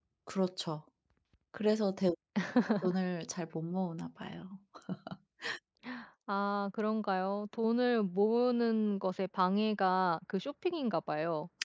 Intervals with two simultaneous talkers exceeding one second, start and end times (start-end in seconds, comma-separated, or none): none